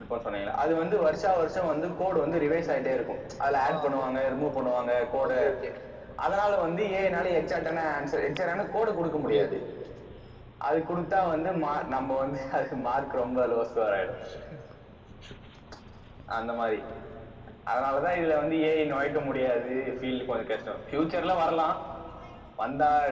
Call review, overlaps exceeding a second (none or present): none